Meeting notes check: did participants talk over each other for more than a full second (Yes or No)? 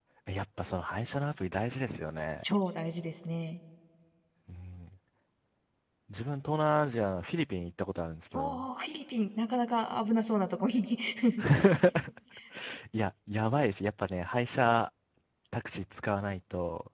No